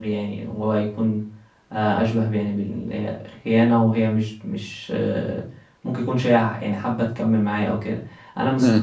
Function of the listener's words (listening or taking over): listening